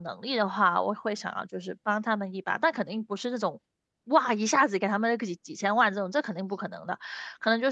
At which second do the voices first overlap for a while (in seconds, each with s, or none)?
none